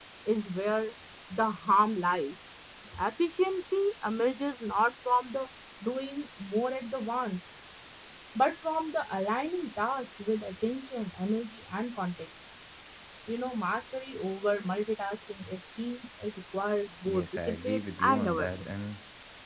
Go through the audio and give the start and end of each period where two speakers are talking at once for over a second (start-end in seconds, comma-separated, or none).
17.1-18.6